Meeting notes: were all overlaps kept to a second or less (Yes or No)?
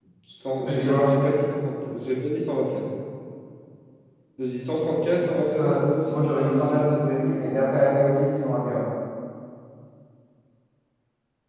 No